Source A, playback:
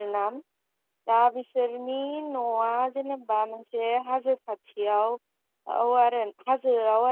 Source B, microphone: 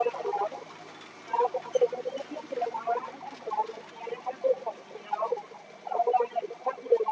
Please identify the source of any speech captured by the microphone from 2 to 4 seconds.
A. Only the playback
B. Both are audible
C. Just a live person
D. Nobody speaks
A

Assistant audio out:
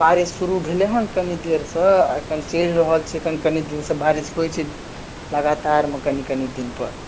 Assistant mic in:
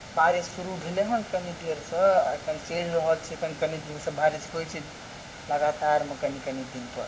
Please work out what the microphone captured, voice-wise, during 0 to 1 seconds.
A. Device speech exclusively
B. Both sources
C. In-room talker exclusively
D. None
A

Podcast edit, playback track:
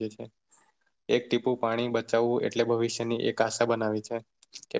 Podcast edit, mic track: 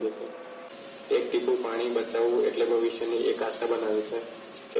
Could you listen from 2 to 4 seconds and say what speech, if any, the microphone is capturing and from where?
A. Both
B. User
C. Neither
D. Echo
D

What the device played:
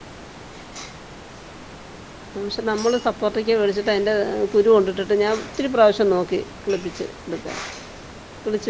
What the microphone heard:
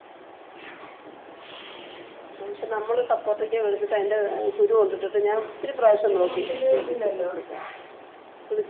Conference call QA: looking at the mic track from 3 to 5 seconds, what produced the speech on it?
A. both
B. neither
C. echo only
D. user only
C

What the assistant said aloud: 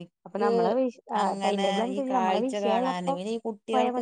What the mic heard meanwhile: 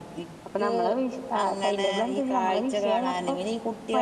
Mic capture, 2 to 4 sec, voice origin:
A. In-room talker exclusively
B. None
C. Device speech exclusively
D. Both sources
C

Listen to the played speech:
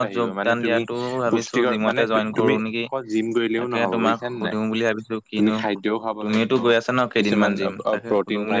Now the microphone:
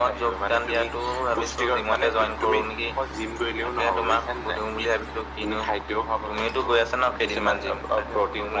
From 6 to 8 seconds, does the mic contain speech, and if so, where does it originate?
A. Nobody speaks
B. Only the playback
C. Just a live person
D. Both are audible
B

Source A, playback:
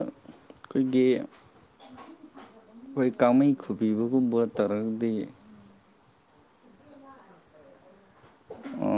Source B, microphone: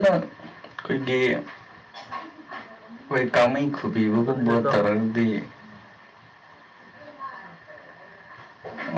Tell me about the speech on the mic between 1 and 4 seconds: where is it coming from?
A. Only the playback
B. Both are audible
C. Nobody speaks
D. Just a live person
A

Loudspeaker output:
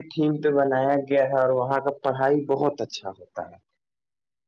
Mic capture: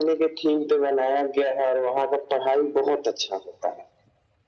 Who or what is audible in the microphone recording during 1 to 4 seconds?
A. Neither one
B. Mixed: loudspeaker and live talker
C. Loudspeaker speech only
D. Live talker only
C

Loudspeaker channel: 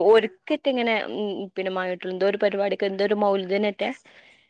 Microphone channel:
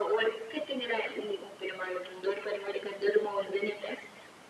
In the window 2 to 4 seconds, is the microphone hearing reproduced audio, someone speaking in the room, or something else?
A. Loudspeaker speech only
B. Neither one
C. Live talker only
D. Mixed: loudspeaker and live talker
A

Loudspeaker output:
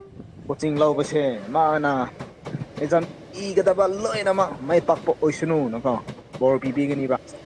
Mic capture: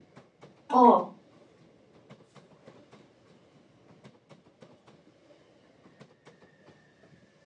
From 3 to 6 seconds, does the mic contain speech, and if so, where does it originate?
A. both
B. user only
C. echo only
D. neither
D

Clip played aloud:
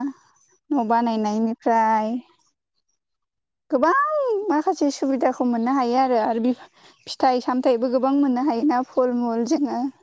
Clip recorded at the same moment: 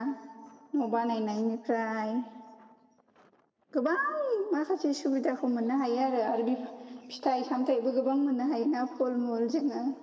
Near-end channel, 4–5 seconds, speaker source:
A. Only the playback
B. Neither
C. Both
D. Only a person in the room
A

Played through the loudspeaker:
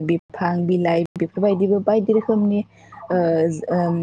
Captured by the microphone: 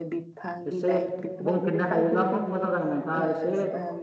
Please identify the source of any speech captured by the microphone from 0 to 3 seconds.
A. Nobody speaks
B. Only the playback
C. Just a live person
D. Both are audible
D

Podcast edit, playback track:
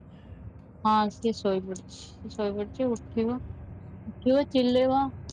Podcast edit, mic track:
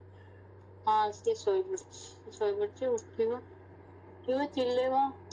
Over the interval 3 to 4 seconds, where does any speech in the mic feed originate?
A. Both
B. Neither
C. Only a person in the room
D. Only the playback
D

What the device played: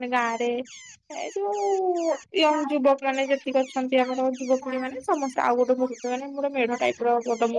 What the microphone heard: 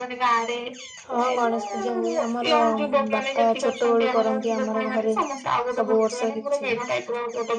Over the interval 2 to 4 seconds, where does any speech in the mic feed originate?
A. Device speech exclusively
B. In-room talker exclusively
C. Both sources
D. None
C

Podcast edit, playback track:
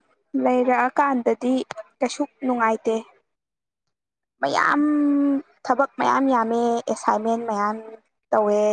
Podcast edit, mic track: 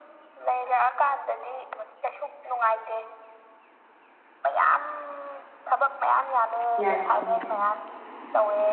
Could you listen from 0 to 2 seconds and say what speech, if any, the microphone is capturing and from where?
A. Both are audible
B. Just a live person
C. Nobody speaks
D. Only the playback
D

